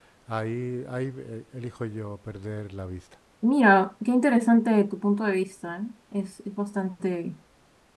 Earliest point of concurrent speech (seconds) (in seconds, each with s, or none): none